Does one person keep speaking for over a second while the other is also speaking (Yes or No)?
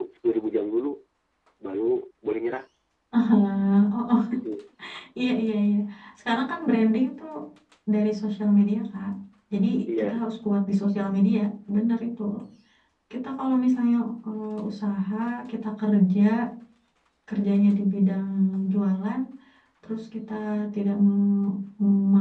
No